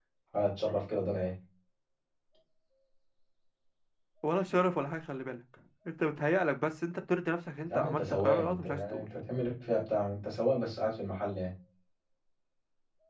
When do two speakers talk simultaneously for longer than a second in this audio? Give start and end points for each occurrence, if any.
7.7-9.1

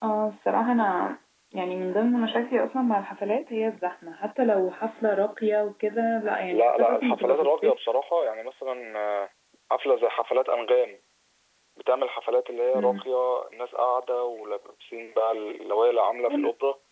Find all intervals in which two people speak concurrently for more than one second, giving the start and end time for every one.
6.5-7.7

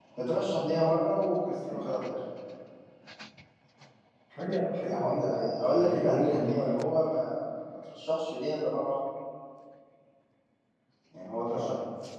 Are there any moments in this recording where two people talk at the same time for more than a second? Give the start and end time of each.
4.9-6.8

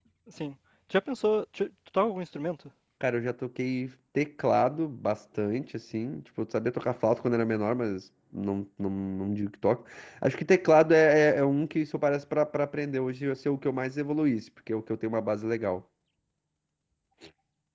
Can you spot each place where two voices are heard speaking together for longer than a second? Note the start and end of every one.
none

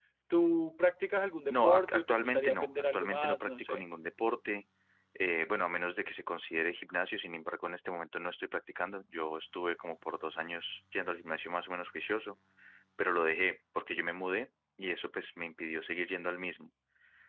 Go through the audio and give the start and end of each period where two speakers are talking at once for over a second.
1.5-3.8

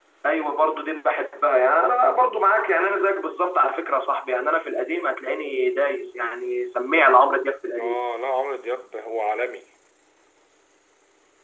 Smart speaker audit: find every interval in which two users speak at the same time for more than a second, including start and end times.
none

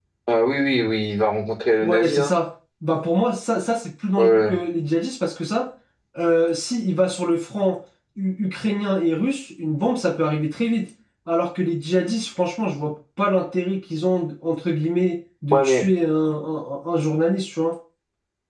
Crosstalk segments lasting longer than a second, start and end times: none

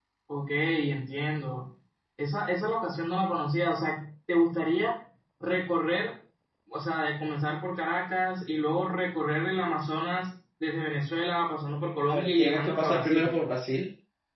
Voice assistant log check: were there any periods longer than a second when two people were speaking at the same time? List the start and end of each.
12.1-13.3

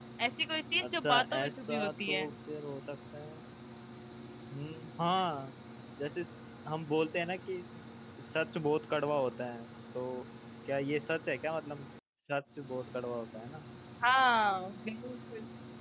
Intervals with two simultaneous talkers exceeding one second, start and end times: 0.8-2.2

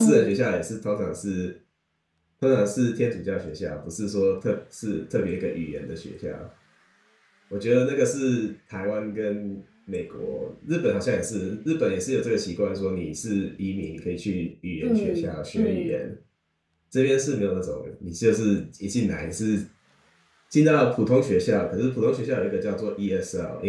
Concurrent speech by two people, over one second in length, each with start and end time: 14.8-16.1

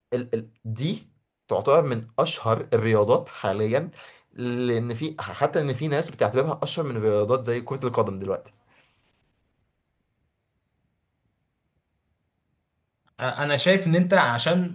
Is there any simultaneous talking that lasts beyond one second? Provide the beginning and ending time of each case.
none

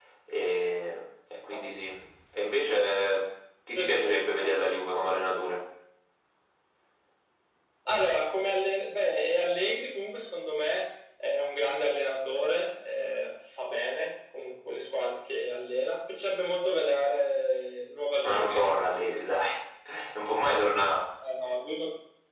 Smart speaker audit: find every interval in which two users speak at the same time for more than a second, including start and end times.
none

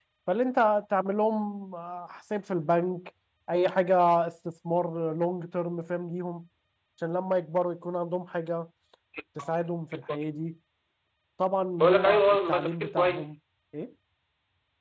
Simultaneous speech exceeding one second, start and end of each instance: 11.8-13.3

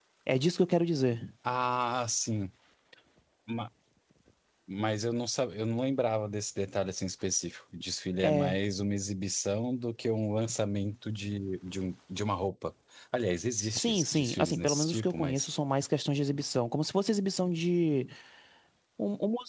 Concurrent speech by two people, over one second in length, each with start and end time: 13.8-15.5

